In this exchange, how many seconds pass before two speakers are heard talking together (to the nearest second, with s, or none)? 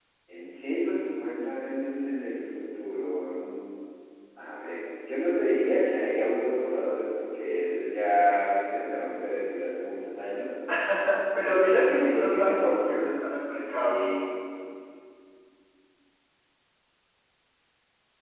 11 s